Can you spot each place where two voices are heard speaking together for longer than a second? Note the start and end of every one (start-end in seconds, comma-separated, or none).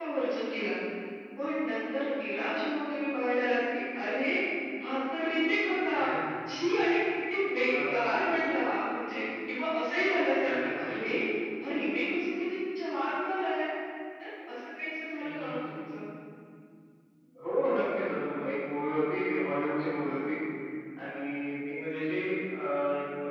none